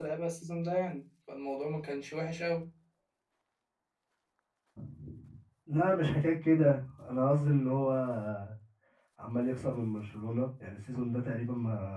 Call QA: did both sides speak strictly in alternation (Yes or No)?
Yes